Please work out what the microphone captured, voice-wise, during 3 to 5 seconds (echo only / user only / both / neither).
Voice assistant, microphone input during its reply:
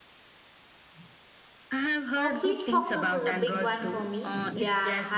both